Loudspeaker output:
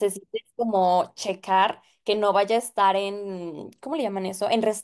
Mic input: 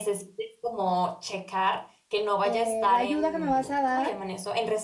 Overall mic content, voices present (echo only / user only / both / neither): both